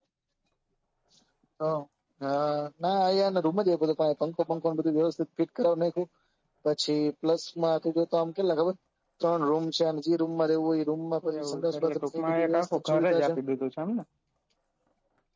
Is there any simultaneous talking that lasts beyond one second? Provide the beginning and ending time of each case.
11.4-13.3

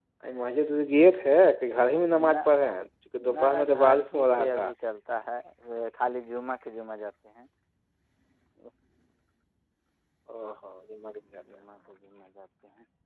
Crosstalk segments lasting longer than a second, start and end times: 3.3-4.7

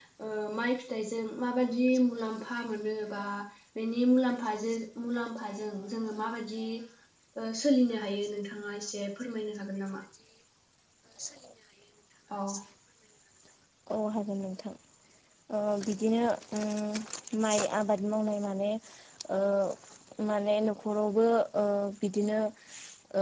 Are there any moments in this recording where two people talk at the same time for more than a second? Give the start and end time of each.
none

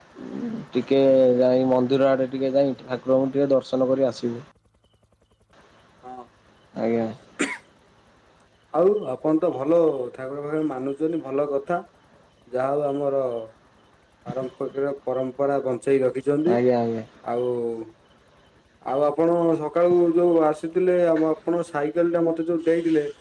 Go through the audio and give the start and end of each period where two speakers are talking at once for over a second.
none

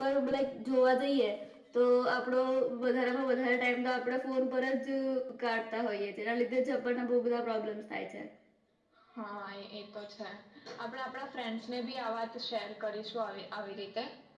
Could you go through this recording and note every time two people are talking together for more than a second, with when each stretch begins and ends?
none

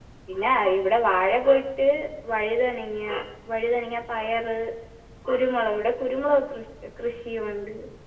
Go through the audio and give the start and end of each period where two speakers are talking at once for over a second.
none

